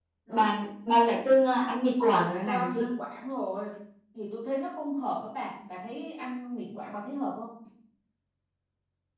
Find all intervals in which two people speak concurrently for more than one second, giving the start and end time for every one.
none

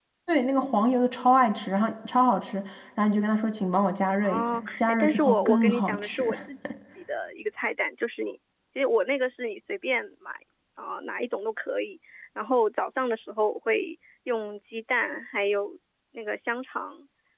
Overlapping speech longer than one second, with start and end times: 4.2-6.3

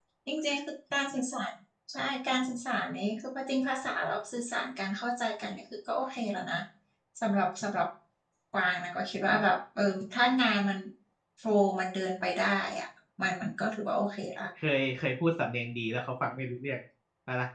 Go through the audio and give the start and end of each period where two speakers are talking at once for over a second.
none

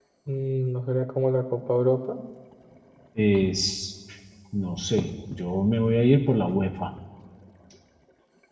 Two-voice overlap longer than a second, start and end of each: none

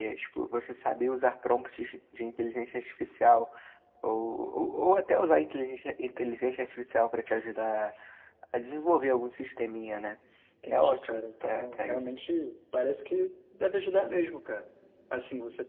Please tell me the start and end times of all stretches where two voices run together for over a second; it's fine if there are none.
10.7-12.0

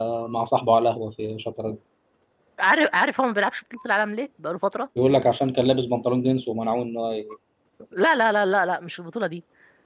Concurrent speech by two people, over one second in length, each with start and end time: none

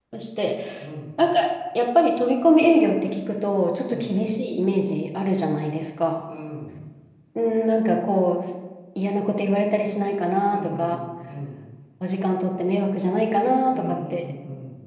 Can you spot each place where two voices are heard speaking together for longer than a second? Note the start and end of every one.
none

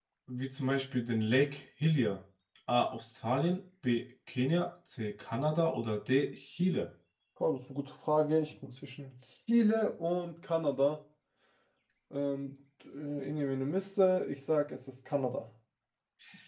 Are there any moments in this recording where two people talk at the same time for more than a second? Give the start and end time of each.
none

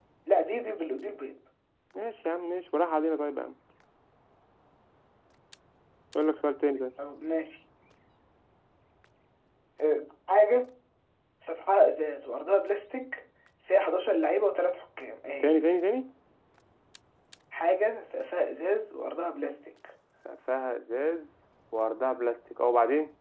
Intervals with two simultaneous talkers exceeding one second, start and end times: none

